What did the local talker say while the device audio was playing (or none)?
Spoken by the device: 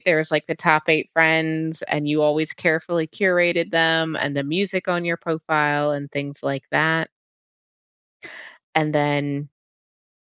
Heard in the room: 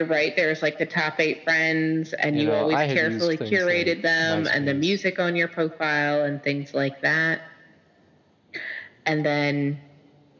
you know, I had used things like MySpace